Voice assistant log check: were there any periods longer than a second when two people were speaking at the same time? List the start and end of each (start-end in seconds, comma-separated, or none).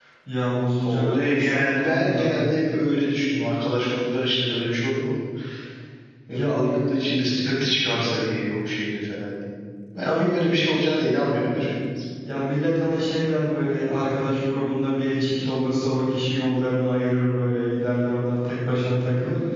0.8-2.4